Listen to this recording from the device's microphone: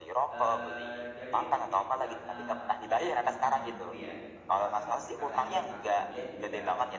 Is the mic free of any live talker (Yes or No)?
No